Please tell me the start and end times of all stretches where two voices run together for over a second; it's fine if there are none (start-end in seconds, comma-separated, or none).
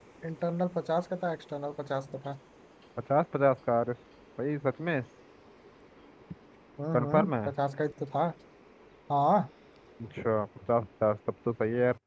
none